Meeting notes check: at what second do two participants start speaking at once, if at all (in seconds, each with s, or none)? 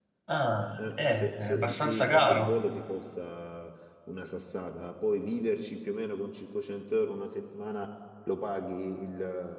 0.8 s